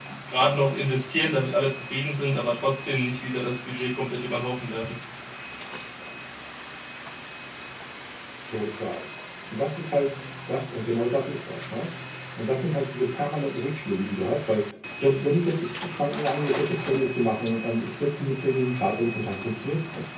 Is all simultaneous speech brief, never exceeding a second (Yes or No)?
Yes